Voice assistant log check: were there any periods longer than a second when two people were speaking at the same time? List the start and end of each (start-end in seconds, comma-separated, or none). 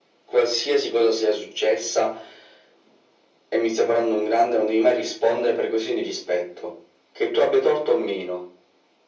none